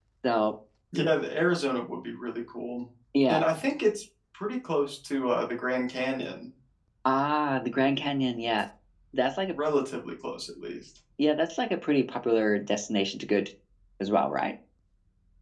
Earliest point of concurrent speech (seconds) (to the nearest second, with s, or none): none